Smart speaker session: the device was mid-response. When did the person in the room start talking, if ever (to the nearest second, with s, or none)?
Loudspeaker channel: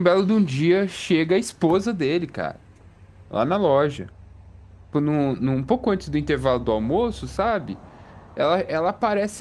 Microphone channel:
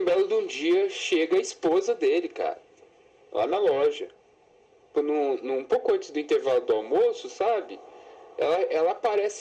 none